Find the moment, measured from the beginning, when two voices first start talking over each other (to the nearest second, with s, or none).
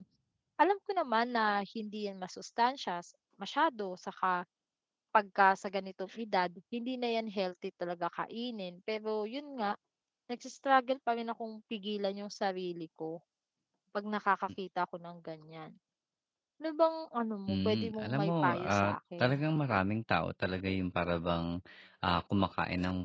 17 s